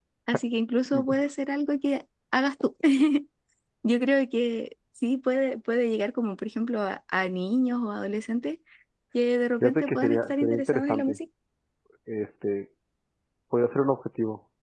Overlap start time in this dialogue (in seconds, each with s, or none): 9.6 s